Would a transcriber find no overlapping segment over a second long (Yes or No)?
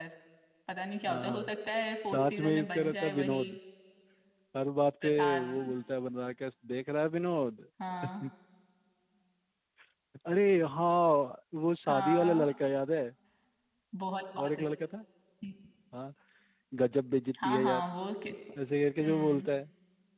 No